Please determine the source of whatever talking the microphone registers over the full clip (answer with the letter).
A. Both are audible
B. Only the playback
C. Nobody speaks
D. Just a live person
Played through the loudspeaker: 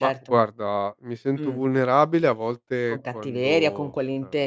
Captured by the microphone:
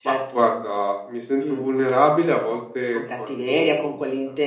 B